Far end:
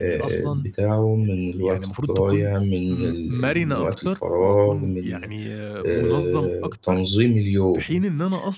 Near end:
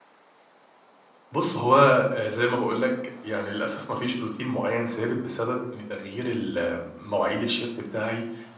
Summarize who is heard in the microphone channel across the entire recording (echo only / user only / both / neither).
user only